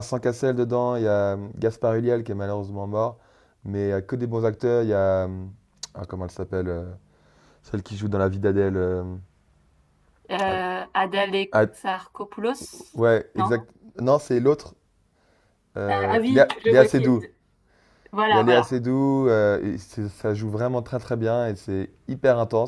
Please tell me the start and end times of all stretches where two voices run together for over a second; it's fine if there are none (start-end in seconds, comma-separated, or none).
15.9-17.1